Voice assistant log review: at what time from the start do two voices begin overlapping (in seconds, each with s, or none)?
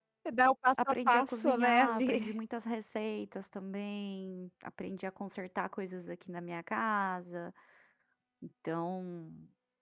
0.8 s